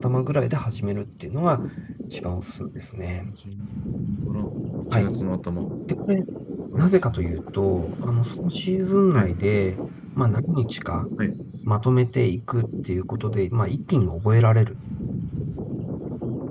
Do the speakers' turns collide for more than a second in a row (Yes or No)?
No